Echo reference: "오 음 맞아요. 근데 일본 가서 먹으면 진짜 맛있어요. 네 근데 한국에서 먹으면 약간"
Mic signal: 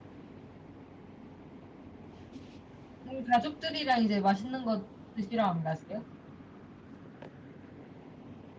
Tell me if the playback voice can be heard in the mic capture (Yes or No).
No